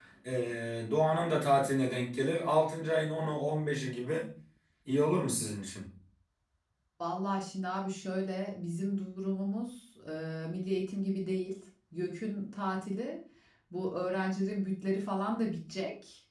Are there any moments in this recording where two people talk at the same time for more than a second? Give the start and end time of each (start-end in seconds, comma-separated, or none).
none